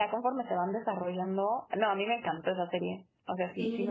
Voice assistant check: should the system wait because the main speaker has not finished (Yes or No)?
No